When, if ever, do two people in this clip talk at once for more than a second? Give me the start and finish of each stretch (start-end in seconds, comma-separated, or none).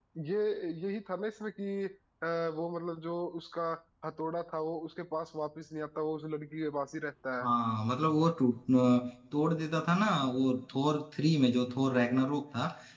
none